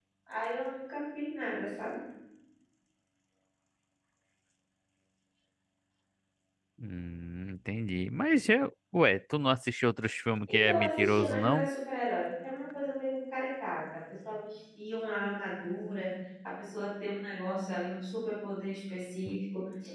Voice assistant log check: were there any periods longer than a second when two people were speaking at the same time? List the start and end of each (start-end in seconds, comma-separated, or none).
10.5-11.7